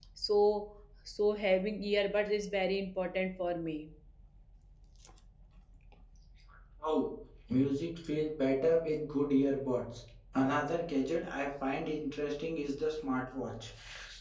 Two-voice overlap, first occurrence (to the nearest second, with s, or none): none